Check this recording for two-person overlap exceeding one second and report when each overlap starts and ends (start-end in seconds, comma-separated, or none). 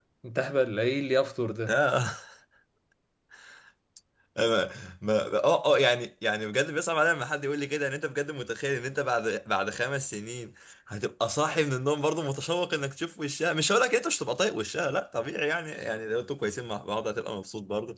none